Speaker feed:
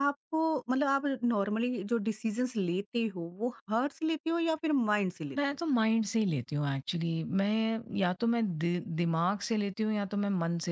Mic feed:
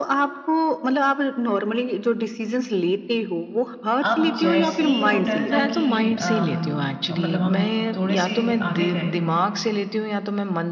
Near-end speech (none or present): present